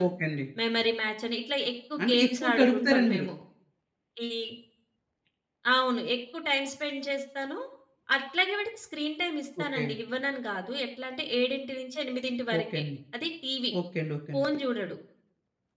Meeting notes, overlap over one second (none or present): present